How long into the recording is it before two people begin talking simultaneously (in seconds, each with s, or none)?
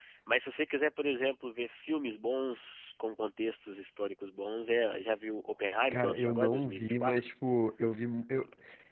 5.9 s